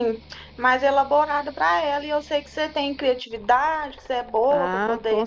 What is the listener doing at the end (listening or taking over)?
taking over